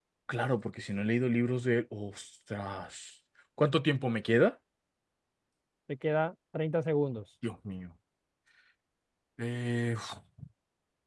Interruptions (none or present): none